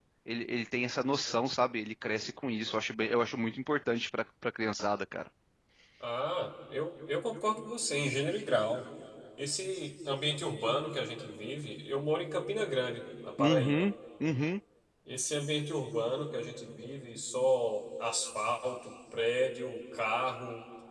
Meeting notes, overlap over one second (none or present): none